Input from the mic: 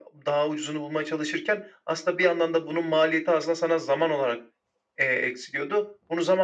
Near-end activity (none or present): none